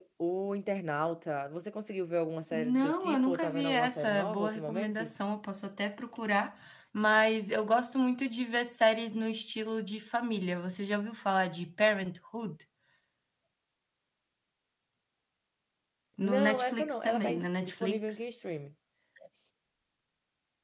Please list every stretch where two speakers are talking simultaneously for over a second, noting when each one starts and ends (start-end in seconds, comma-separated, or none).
2.5-5.1, 16.2-18.2